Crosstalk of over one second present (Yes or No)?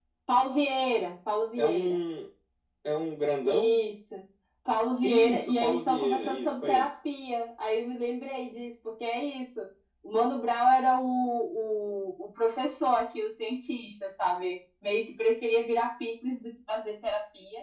Yes